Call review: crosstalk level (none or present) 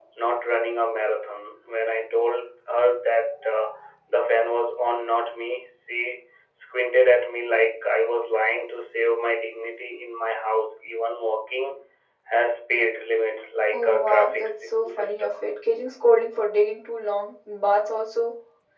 present